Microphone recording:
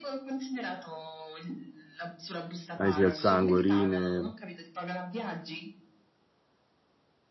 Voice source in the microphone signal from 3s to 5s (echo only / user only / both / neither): both